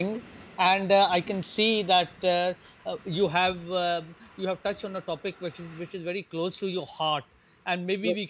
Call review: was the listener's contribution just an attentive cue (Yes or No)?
Yes